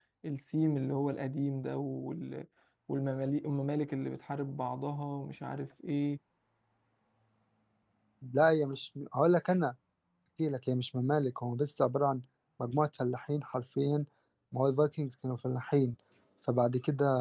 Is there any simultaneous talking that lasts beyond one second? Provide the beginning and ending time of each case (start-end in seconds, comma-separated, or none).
none